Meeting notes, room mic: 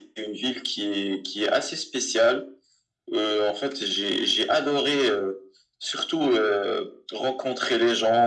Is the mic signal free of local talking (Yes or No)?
Yes